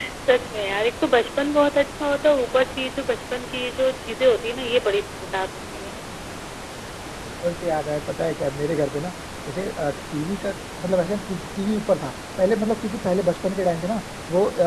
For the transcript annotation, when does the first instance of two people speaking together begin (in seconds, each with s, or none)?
none